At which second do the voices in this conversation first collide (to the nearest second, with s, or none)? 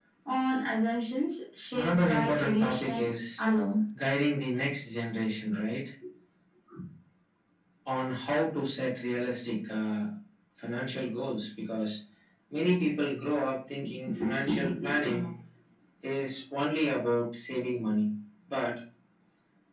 2 s